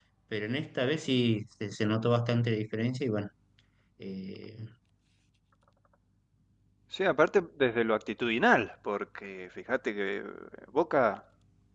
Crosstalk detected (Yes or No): No